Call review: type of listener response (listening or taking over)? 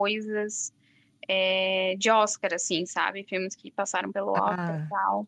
taking over